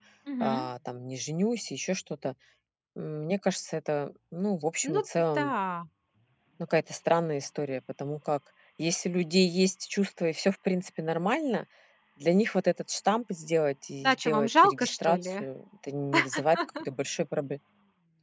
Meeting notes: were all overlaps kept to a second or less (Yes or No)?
No